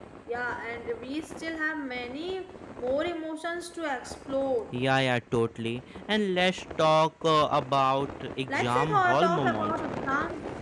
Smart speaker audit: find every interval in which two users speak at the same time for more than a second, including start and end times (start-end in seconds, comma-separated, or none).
8.5-9.7